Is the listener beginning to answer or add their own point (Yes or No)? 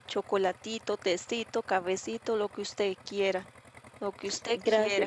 Yes